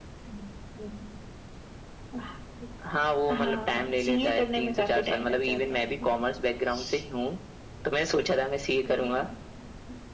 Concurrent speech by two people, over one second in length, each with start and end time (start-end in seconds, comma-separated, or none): 3.3-6.1